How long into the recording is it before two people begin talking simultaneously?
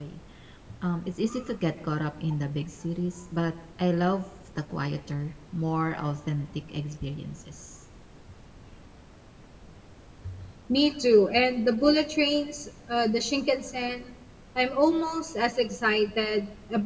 none

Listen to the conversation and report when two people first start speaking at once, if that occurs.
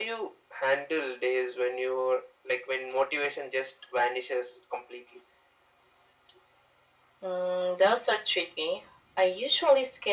none

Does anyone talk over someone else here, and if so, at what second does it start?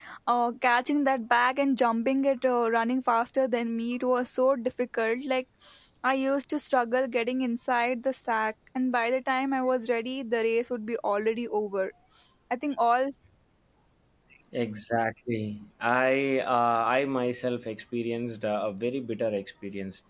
none

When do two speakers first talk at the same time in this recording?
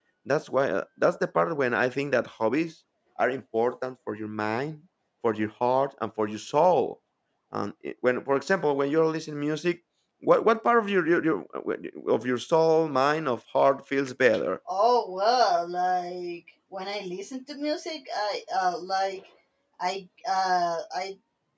none

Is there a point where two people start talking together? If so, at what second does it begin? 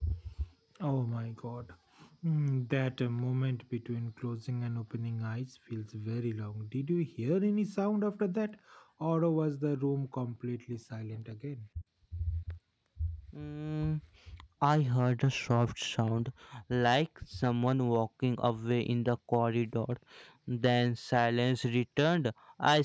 none

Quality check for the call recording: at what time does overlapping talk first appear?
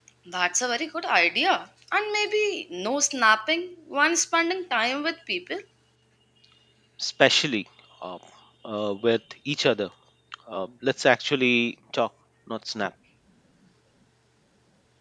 none

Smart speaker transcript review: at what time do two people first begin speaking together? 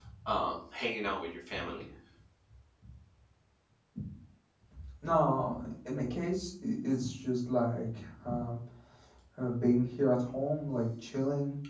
none

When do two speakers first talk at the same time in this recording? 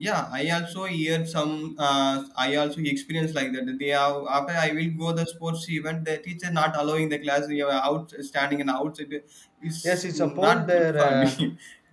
9.8 s

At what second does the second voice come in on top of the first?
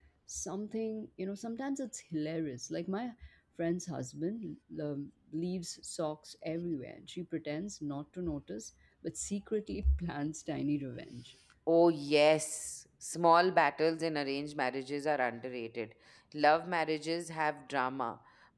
none

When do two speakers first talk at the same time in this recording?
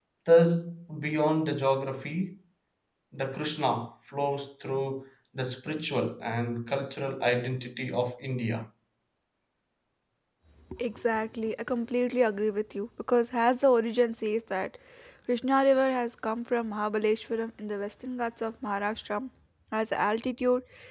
none

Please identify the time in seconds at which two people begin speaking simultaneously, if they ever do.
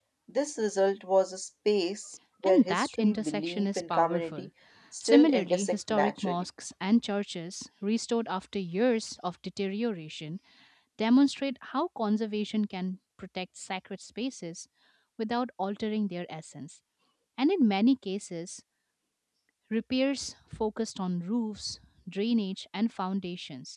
2.4 s

